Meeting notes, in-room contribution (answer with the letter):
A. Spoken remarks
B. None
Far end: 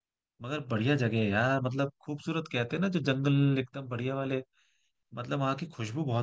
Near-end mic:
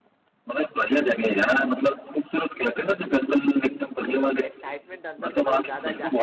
A